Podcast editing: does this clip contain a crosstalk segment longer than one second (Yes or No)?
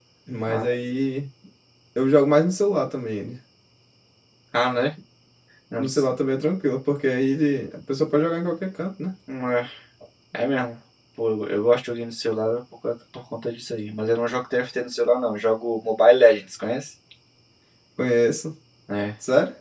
No